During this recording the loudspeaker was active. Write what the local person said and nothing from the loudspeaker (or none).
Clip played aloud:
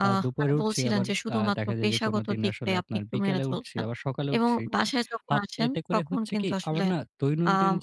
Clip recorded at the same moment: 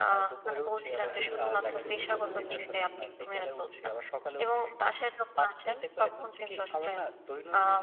এত যে পরিশ্রম এটা